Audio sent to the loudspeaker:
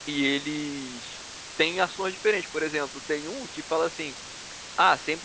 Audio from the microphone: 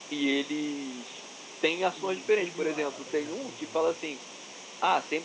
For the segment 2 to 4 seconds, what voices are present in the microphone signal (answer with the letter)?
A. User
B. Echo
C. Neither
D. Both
D